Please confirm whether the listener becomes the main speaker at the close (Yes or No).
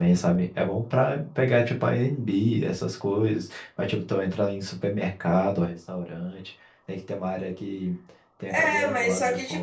Yes